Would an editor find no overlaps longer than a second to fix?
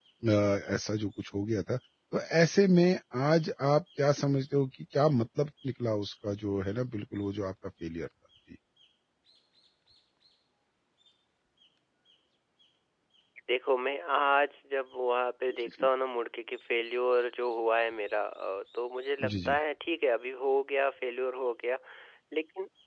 Yes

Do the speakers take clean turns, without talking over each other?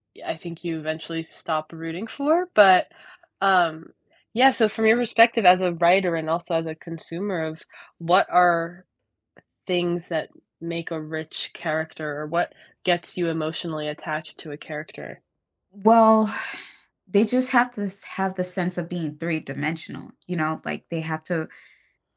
Yes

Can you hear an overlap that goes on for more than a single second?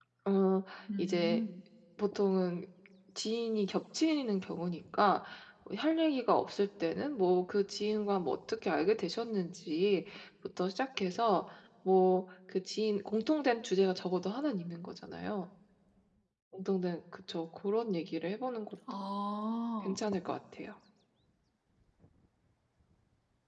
No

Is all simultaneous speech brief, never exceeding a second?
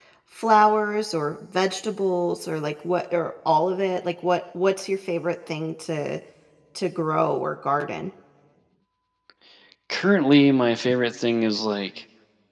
Yes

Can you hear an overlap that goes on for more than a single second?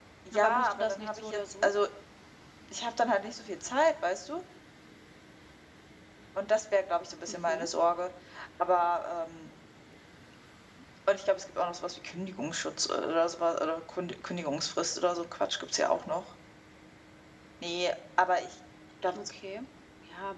Yes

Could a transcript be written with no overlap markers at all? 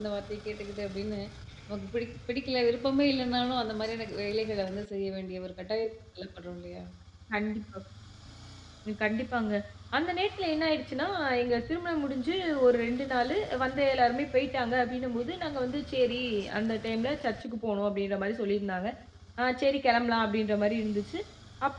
Yes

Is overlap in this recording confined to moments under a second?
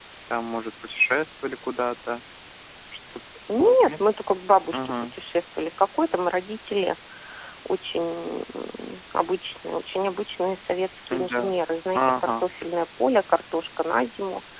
Yes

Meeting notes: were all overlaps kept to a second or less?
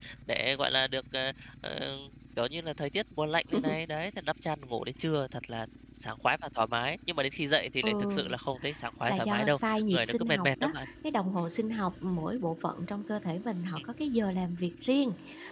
No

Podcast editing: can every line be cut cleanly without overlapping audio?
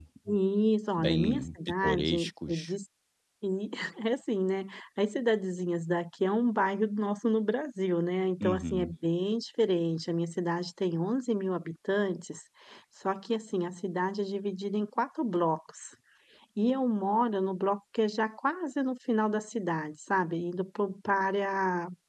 No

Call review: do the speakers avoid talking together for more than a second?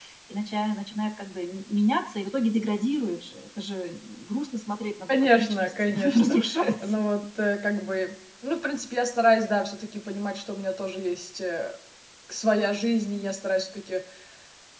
No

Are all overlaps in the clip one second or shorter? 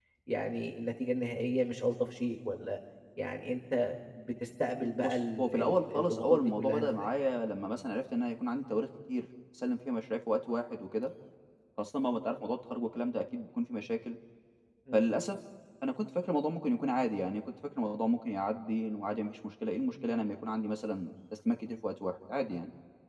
No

